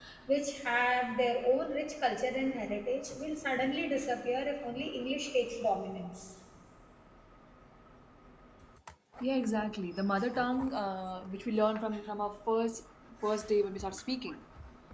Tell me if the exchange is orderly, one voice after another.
Yes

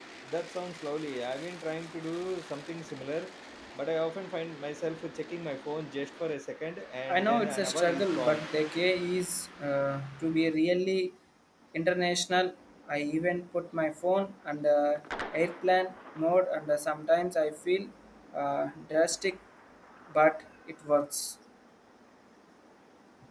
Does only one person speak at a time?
No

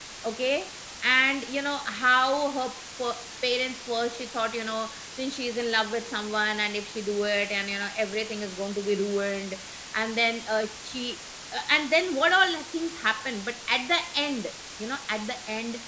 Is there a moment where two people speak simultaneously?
No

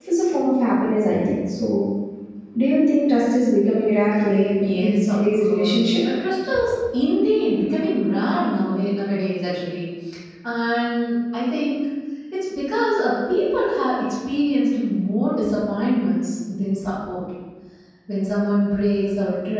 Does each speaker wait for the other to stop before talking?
No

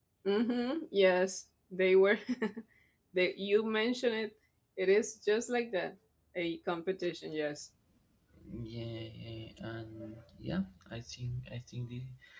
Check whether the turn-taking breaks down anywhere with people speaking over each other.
No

